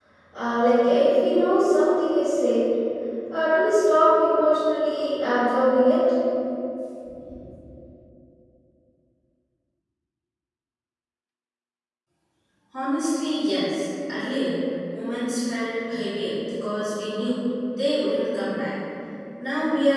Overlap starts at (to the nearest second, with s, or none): none